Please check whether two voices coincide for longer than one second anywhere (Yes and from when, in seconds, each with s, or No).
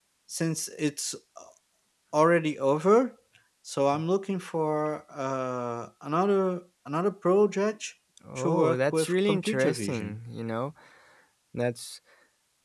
Yes, from 8.4 s